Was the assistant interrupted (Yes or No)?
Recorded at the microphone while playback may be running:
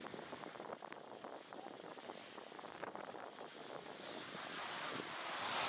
No